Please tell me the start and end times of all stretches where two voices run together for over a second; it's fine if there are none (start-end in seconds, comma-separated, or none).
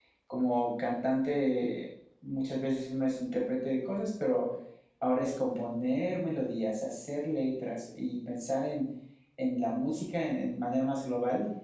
none